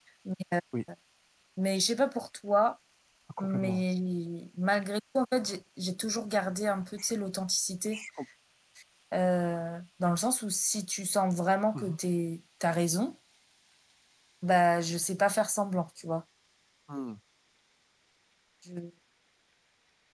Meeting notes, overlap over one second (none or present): none